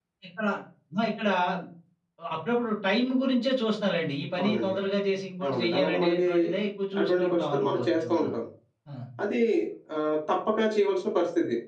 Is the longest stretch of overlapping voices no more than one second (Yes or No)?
No